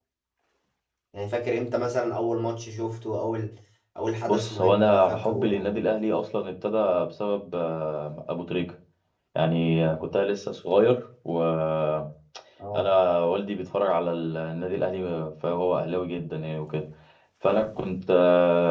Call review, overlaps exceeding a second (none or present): present